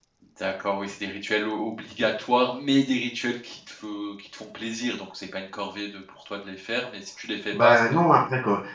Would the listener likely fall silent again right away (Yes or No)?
No